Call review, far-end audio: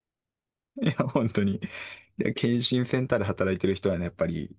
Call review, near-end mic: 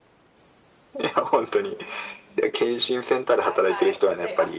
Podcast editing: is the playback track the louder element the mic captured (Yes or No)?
Yes